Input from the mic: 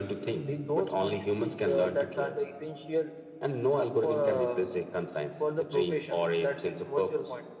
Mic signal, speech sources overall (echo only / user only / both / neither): echo only